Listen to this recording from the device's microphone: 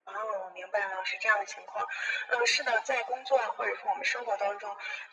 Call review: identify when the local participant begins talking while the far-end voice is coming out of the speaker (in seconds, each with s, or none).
none